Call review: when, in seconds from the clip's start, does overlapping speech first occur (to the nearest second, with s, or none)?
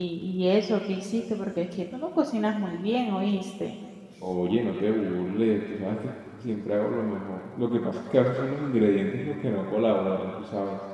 none